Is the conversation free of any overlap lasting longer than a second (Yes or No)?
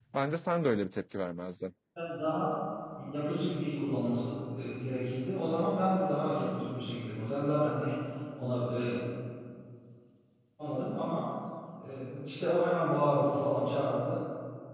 Yes